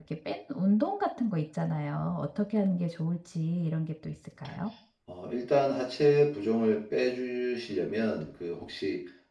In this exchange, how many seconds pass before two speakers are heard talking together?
none

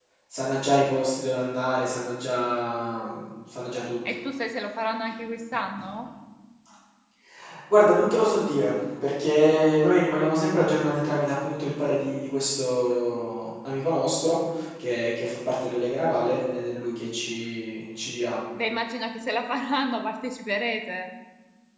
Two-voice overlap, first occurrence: none

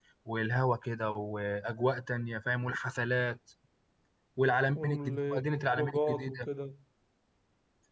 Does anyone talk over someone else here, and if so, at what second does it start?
4.8 s

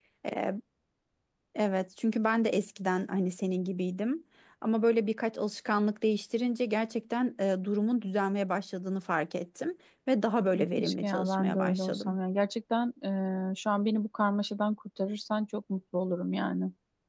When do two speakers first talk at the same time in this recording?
10.5 s

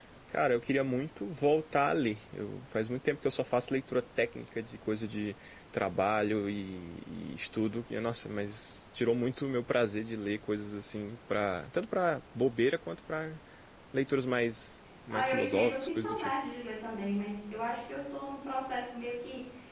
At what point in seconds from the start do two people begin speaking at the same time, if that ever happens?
15.1 s

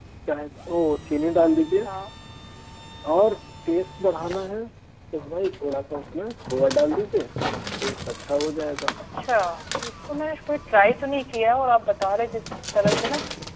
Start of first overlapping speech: none

